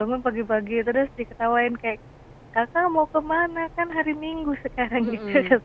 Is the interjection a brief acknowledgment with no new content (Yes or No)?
No